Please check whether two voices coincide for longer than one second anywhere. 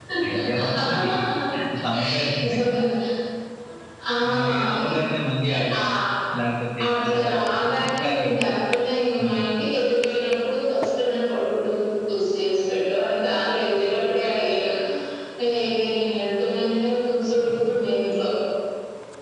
Yes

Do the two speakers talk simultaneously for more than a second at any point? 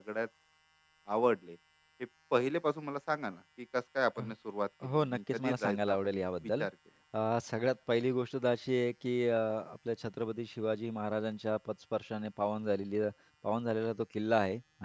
Yes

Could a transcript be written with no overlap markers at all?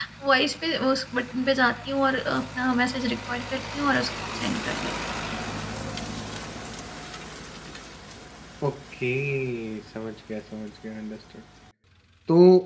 Yes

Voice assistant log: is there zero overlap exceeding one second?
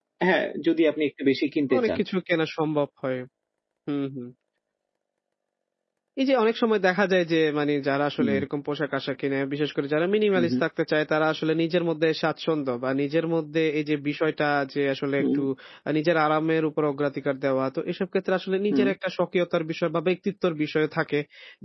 Yes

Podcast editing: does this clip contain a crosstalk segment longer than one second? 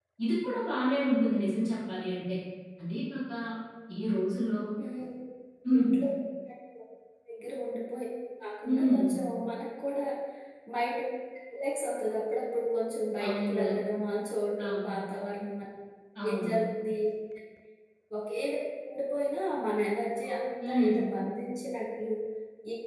No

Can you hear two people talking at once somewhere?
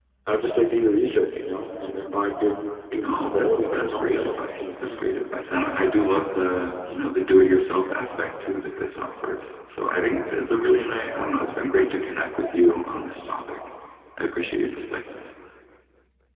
Yes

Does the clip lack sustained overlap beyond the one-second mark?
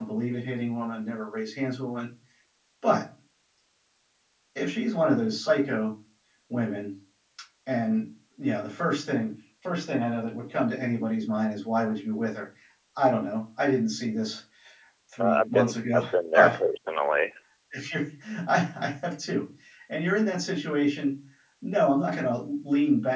No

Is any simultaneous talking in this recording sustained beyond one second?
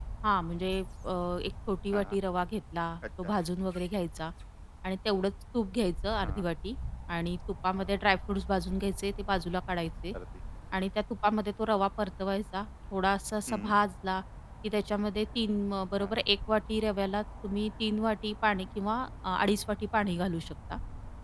No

